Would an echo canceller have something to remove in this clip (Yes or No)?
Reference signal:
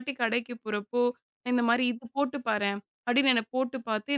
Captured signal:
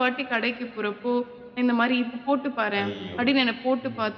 Yes